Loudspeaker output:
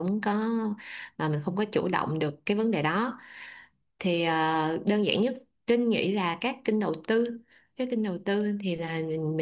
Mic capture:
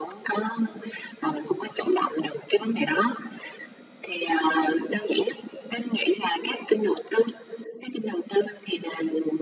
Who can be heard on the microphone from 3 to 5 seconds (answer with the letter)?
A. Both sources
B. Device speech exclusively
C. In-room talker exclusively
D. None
B